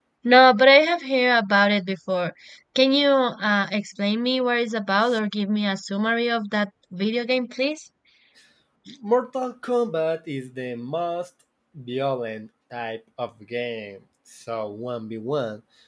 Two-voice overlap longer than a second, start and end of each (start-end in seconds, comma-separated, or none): none